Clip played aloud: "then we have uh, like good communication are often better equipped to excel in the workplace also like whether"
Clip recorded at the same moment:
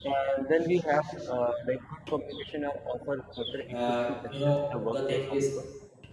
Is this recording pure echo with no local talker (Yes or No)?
No